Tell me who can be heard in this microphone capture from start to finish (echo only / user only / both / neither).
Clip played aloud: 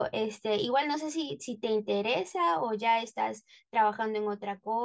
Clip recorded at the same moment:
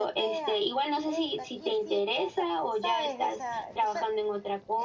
both